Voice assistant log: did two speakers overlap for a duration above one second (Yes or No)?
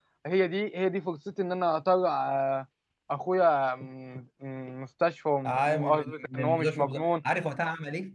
Yes